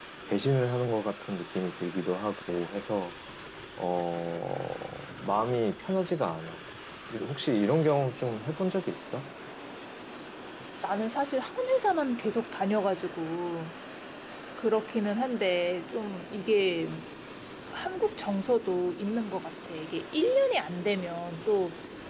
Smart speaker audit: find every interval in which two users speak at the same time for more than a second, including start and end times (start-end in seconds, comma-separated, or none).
none